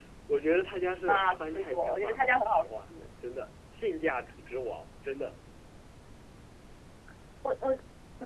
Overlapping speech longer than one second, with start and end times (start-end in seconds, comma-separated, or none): 1.1-2.9